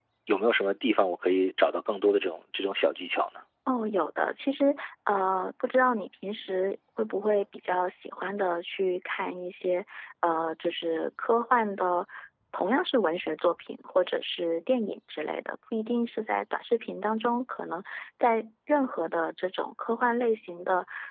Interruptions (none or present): none